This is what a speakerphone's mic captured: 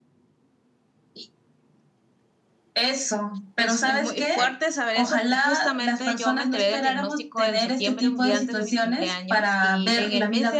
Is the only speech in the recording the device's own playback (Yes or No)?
No